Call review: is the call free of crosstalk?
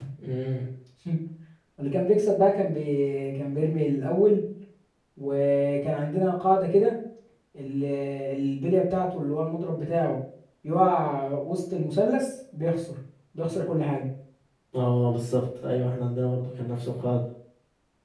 Yes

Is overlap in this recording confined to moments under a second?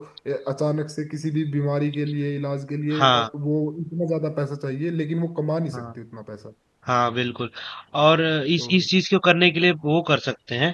Yes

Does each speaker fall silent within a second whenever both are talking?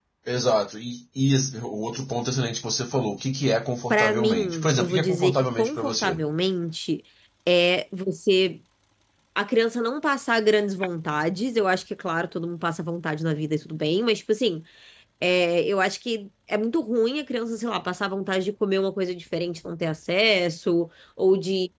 No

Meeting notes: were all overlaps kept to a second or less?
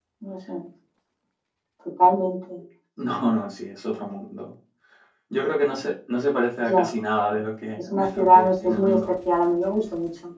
No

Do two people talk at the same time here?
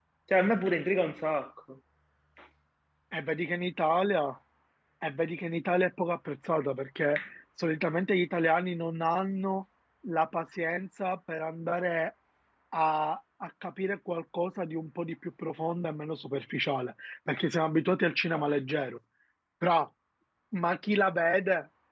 No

